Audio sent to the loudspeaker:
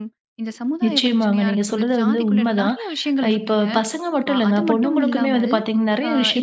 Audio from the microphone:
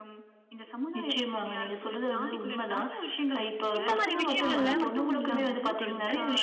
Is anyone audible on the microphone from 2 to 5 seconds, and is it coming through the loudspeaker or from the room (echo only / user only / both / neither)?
both